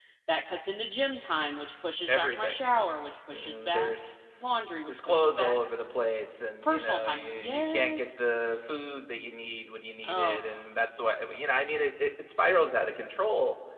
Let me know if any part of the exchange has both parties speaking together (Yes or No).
Yes